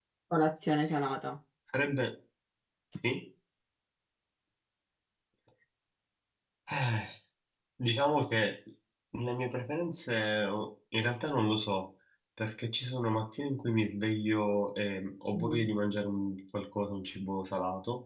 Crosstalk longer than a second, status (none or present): none